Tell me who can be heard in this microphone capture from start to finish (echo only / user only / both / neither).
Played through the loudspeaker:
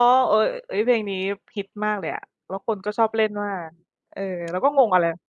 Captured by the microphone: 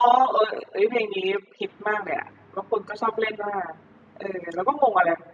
echo only